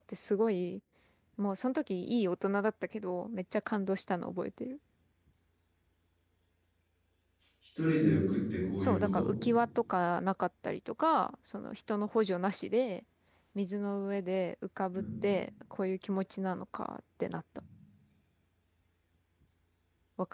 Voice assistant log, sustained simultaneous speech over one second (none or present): none